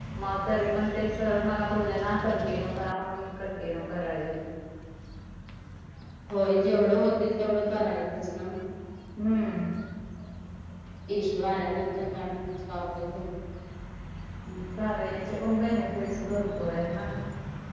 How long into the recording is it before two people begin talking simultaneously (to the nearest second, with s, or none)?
none